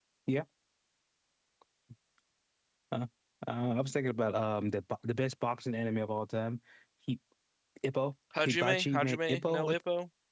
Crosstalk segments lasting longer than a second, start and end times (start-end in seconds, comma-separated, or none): 8.4-9.8